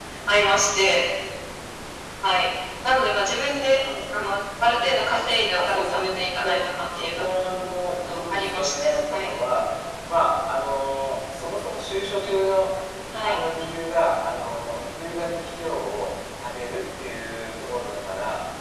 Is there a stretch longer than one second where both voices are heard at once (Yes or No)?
Yes